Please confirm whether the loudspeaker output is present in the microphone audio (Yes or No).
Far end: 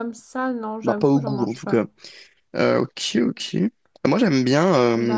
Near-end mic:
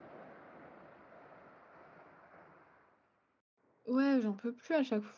No